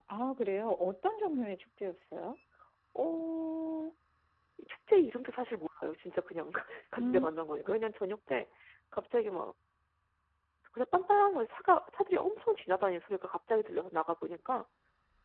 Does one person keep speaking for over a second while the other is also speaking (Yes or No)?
No